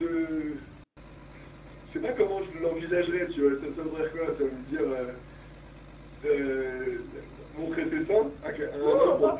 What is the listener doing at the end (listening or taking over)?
taking over